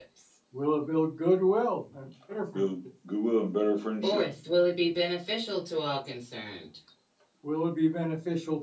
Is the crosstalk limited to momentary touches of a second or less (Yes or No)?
Yes